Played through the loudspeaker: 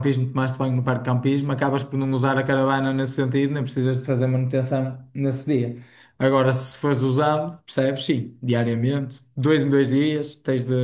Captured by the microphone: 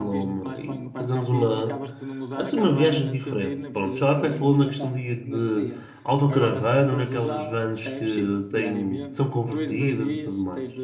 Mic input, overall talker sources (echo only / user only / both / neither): both